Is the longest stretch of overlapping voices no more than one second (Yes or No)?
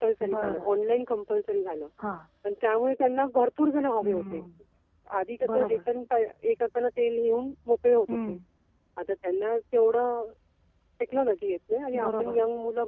Yes